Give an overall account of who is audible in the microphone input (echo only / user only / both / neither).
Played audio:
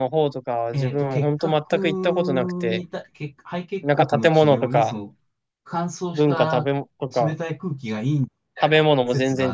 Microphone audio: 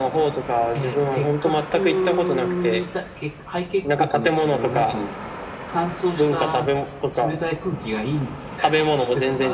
echo only